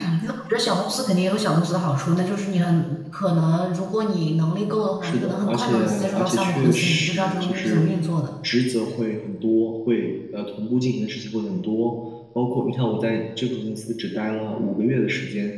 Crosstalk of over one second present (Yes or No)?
Yes